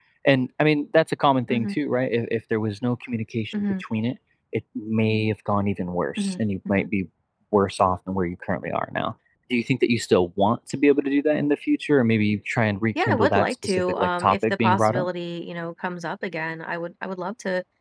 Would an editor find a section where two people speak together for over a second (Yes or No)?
Yes